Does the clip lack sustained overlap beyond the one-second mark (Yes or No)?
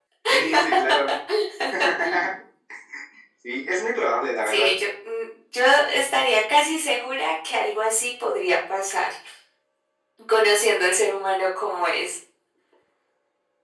Yes